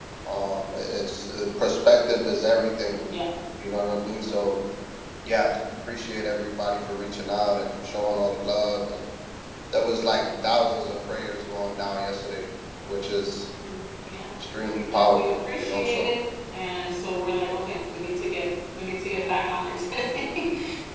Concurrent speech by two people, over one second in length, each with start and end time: 14.9-16.1

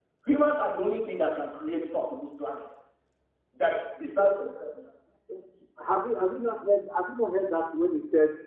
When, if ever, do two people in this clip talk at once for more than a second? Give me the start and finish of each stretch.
none

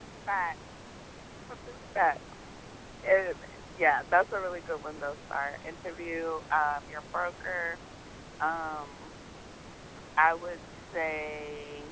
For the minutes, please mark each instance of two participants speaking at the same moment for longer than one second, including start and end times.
none

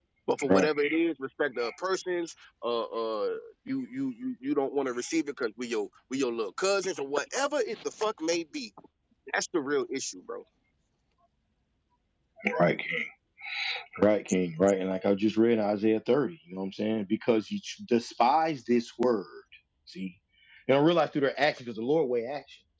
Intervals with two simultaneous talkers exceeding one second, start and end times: none

